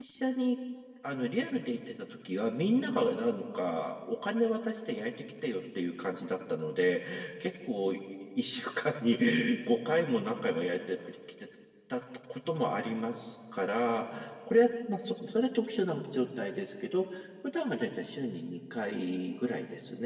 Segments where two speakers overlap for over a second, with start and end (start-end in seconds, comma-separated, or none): none